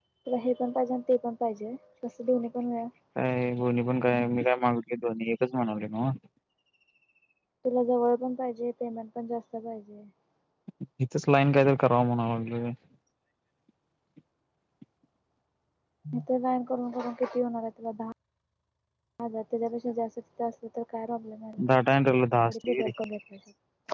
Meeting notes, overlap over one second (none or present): none